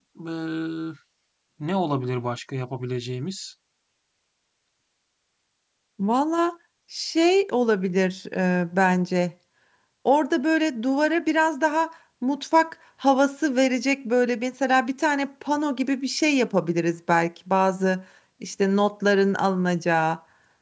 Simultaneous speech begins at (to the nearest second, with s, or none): none